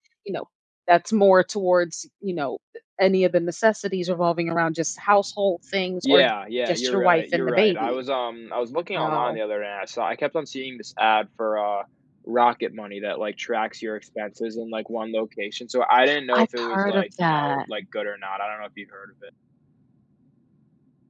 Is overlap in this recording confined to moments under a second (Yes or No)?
No